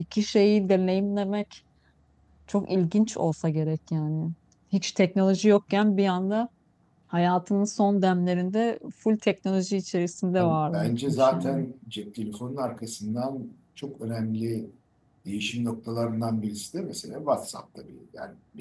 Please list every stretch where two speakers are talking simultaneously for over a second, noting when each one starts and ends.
10.4-11.6

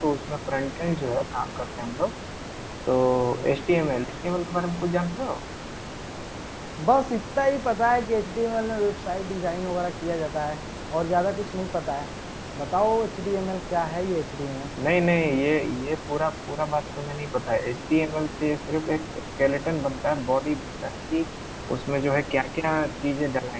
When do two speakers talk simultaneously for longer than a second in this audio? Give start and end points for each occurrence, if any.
none

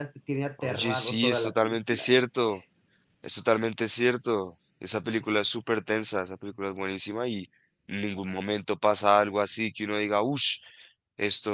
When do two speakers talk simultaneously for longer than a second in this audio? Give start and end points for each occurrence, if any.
0.6-2.1

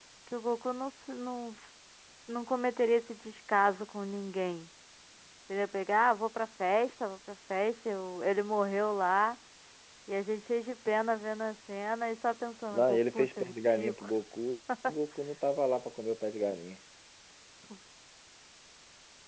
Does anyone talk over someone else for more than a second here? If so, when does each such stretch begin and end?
12.7-14.1

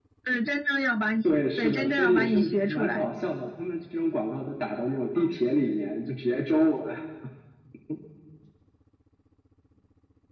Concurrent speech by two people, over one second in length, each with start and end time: 1.2-3.0

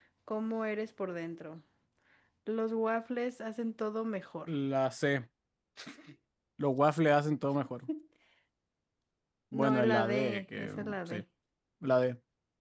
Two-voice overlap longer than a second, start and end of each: 9.5-11.2

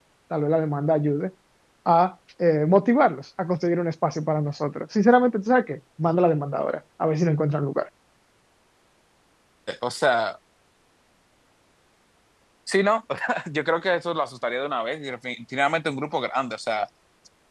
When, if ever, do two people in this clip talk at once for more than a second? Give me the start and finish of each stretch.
none

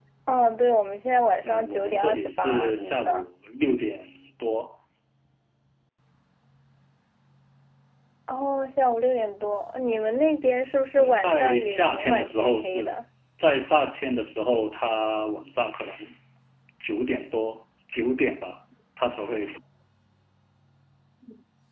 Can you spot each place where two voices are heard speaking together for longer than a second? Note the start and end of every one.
1.4-3.2, 11.0-12.9

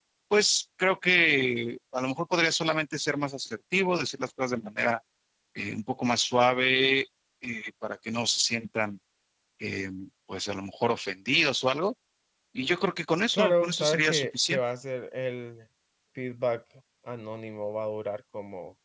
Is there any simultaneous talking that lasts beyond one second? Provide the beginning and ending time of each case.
13.3-14.6

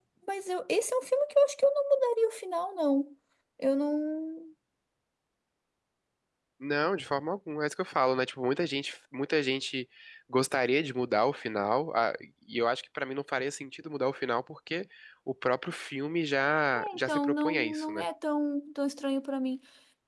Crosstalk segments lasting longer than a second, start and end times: 16.8-18.1

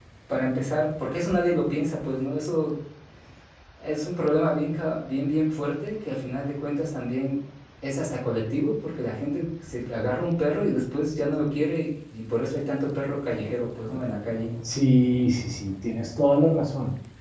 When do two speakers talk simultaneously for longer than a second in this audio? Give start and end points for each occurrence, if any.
none

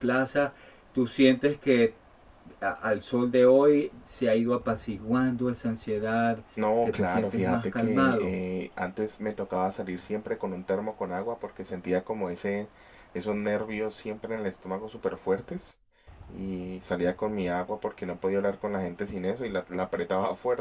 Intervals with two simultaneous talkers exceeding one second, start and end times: 6.8-8.2

